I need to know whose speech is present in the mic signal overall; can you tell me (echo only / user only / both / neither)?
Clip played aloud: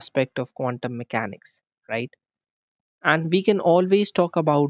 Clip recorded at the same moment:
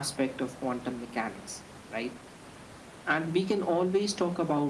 echo only